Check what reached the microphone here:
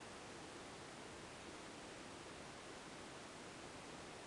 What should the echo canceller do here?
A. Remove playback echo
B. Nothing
B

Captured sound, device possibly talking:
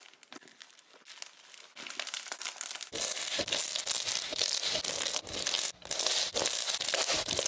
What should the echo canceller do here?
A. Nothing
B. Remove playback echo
A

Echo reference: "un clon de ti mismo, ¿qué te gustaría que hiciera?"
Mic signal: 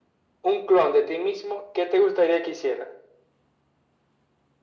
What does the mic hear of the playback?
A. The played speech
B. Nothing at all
A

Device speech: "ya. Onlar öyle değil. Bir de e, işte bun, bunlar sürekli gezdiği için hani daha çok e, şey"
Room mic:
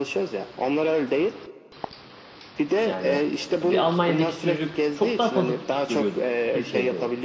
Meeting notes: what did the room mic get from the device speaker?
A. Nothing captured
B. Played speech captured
B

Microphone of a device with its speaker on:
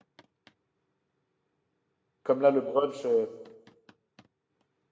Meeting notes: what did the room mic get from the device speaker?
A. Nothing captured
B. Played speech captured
A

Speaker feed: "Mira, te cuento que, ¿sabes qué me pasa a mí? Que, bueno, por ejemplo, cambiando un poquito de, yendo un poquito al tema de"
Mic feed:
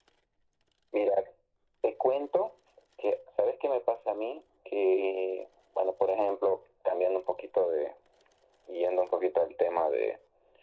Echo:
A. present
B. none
A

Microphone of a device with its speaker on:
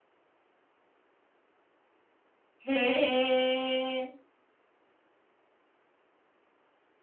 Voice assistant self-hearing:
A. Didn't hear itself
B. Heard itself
A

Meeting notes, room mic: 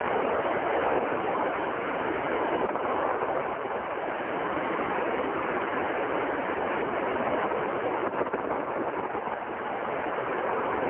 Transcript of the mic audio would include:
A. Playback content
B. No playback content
B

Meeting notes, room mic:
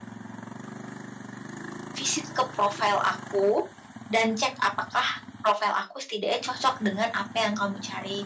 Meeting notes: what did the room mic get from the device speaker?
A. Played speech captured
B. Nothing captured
B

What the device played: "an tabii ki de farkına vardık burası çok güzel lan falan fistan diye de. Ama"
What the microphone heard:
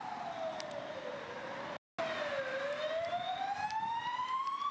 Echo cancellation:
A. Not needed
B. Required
A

